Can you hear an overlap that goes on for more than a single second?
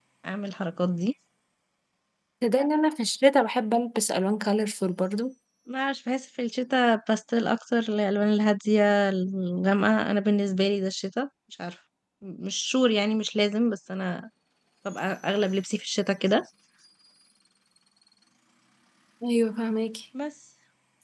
No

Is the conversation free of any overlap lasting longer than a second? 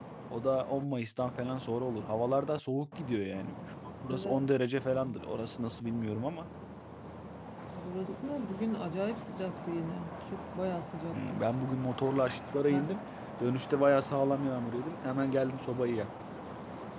Yes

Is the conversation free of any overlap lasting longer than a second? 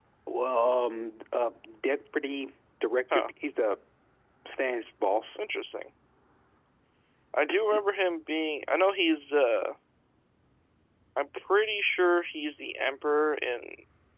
Yes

